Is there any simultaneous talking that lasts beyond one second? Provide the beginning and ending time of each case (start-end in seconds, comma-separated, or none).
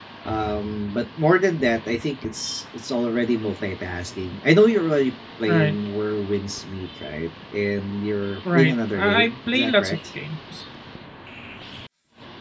8.5-10.0